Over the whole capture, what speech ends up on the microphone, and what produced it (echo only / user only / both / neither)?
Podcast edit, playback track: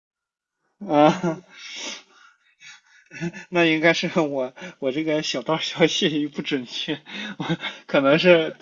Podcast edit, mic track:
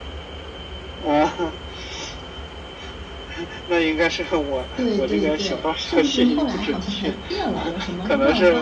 both